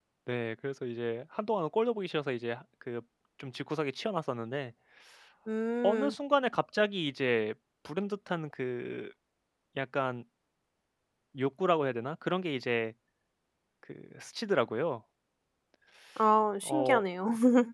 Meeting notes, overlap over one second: none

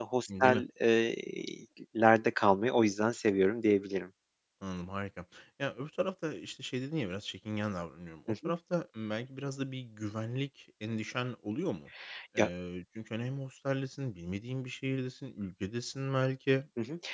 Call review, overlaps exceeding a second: none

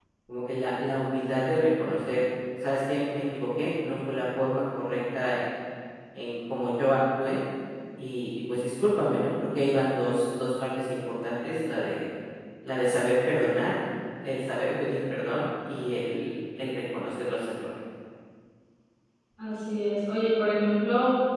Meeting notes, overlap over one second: none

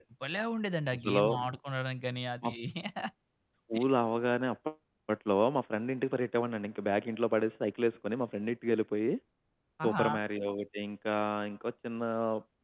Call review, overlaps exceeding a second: none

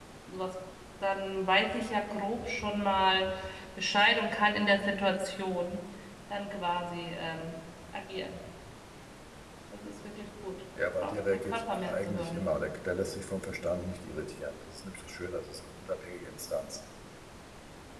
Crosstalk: present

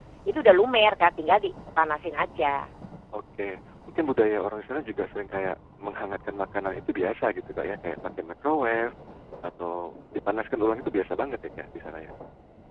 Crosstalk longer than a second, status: none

